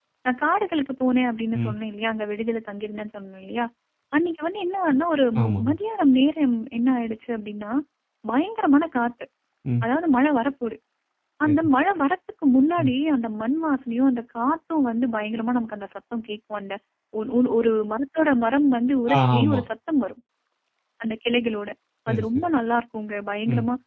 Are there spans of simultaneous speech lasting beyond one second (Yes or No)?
No